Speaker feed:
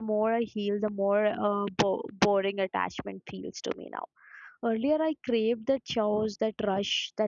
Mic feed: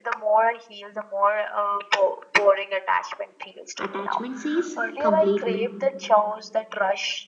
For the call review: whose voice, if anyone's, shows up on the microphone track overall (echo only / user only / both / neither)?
both